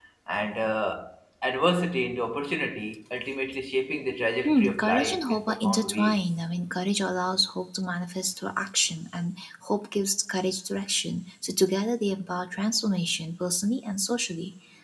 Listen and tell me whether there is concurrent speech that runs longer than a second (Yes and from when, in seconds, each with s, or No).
Yes, from 4.5 s